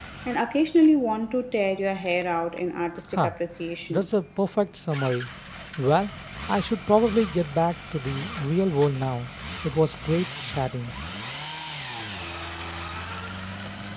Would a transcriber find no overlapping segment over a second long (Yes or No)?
Yes